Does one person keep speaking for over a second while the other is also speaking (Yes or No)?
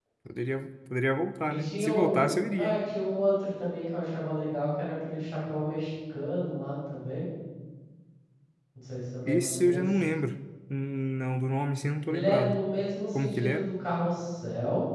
Yes